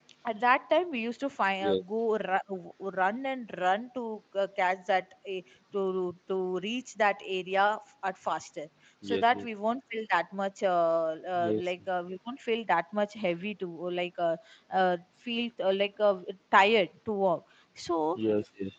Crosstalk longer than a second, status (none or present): none